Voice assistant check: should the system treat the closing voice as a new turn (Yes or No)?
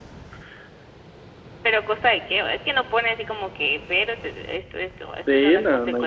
Yes